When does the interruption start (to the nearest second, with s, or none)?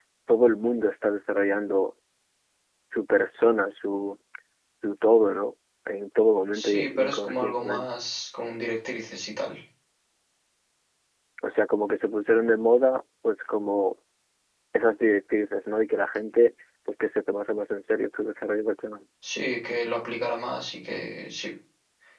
7 s